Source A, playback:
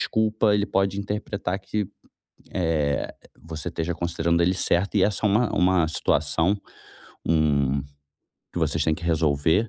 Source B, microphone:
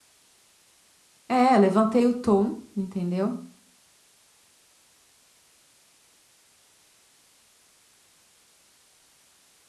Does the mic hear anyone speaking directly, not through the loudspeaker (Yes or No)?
Yes